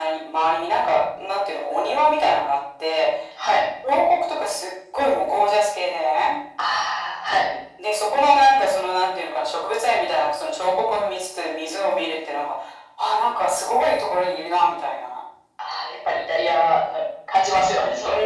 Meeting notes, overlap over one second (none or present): none